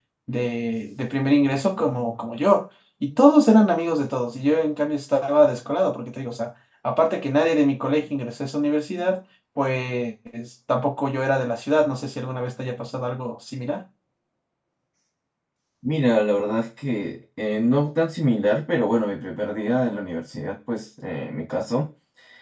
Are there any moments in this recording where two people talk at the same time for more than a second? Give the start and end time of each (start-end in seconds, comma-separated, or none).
none